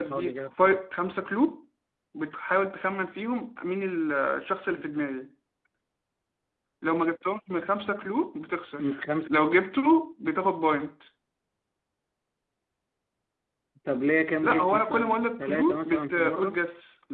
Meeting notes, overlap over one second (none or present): present